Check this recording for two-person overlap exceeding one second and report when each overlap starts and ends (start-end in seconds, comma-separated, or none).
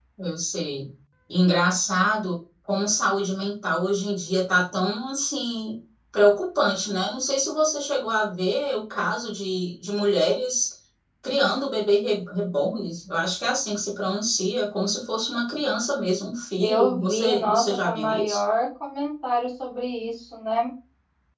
16.6-18.4